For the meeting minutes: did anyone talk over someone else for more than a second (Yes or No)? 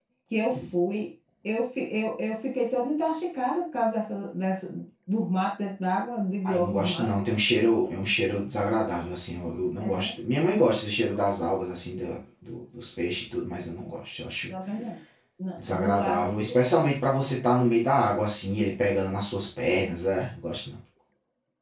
Yes